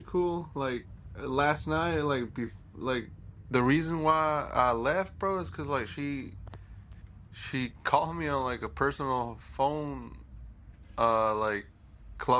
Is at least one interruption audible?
No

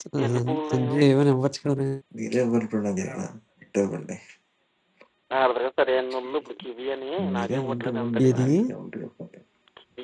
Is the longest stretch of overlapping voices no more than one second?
No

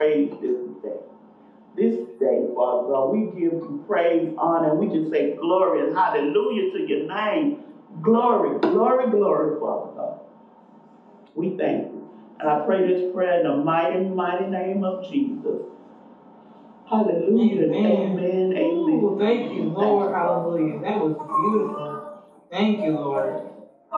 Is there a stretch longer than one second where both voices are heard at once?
Yes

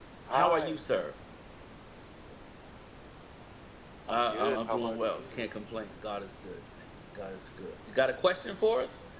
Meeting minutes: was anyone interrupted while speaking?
Yes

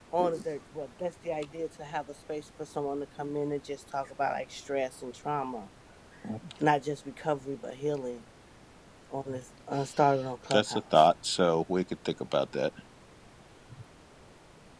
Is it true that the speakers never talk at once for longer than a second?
Yes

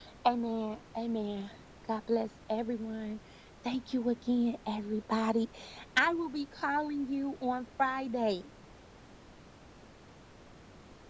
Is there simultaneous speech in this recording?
No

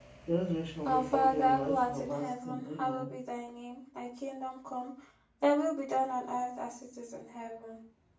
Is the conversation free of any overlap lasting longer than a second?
No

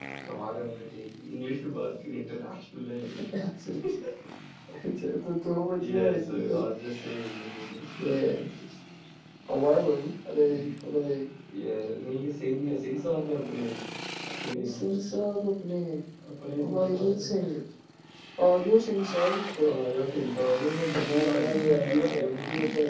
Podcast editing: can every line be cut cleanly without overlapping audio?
No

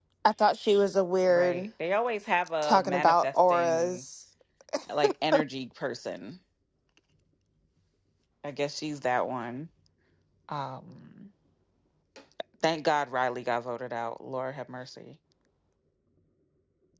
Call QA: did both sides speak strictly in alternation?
No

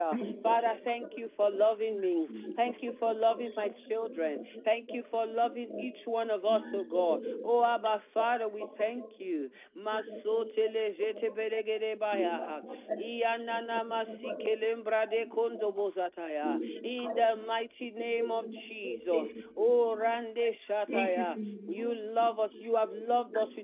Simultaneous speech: Yes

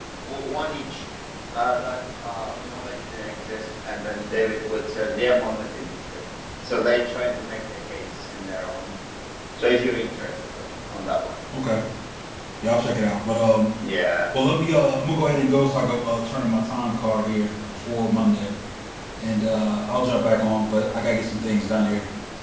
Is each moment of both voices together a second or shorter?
Yes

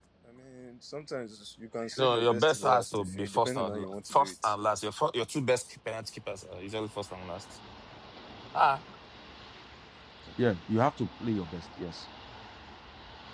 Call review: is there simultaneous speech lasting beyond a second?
Yes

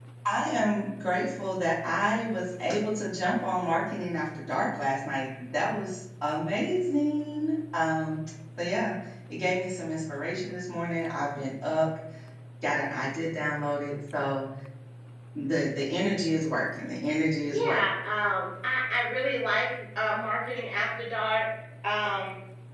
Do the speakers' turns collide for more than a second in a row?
No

